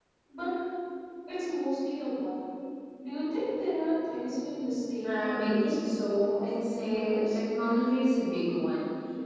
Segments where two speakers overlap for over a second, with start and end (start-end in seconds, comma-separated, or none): 5.0-7.4